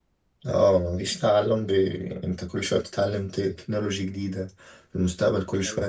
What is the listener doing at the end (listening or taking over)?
listening